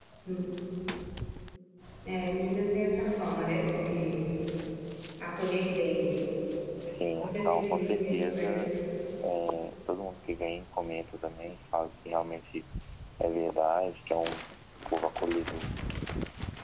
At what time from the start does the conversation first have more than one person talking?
7.2 s

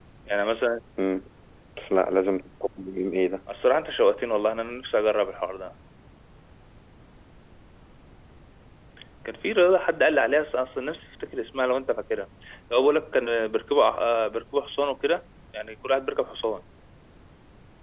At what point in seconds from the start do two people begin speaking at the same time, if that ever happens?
none

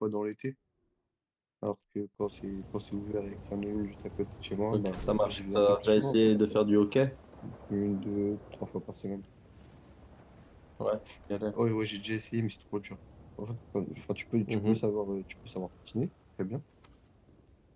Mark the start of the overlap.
4.7 s

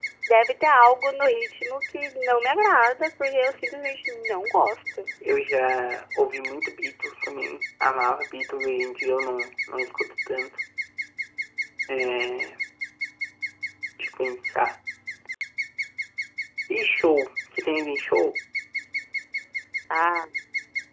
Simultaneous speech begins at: none

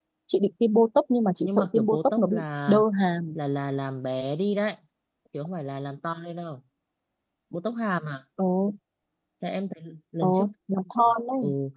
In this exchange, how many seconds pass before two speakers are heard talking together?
1.4 s

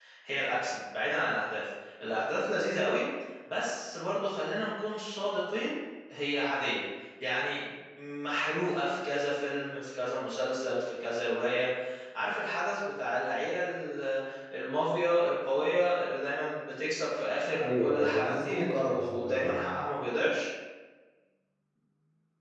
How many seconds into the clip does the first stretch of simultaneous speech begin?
17.6 s

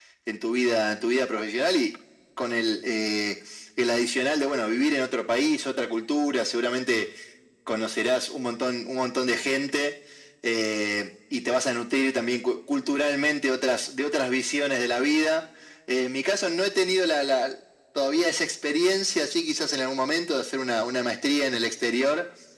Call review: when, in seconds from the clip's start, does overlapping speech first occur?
none

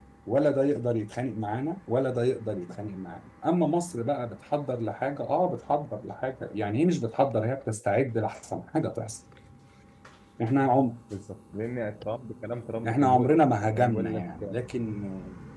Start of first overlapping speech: 12.8 s

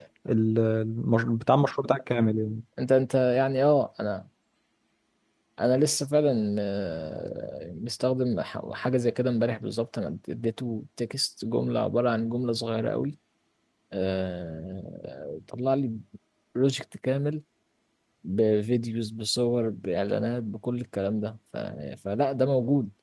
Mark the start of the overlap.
none

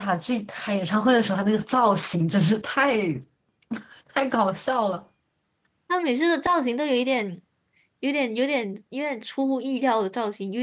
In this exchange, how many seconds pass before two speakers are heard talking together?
none

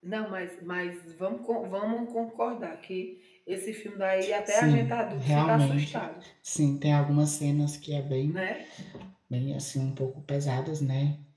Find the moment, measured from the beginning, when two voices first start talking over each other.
4.2 s

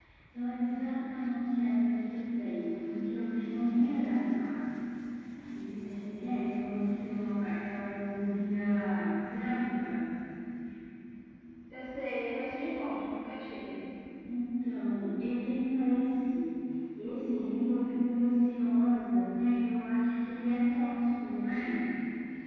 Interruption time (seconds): none

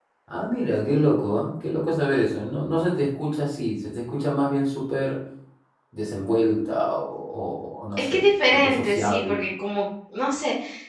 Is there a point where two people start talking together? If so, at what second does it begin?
8.1 s

